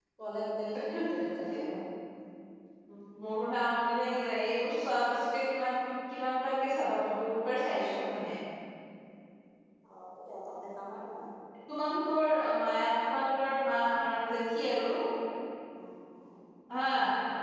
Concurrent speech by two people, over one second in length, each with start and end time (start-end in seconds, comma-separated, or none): none